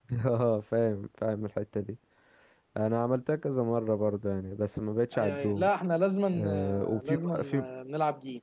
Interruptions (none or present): present